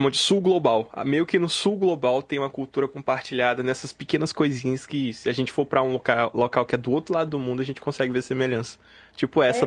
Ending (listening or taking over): taking over